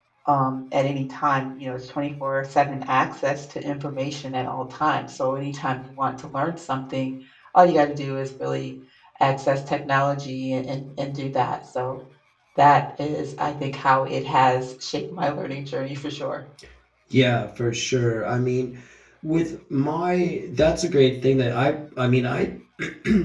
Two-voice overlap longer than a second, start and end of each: none

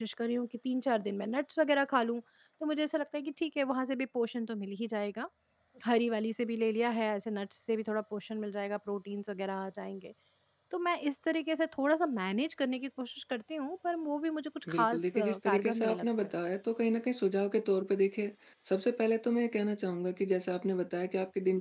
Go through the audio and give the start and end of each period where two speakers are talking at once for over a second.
14.7-16.3

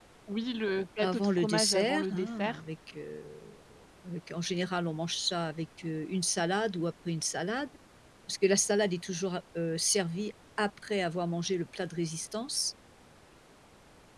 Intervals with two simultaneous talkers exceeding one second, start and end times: 1.0-2.6

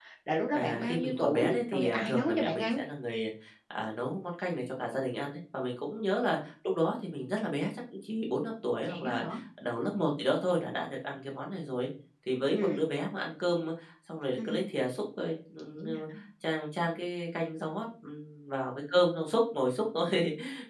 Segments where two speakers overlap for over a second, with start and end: 0.5-2.8

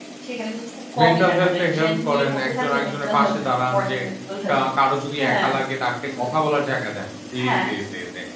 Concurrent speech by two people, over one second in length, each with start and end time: 1.0-4.0

